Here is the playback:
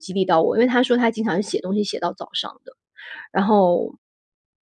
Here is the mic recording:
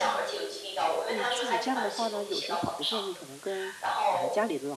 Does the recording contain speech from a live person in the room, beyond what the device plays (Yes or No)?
Yes